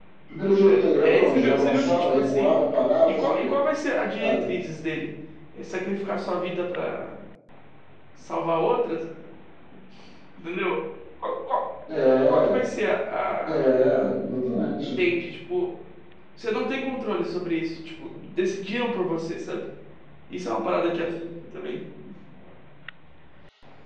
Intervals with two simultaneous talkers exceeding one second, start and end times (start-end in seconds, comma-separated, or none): 0.7-2.6